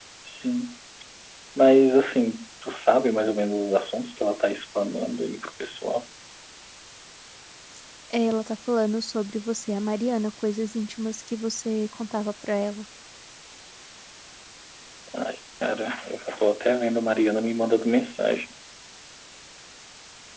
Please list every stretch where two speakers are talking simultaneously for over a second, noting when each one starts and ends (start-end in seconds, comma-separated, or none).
none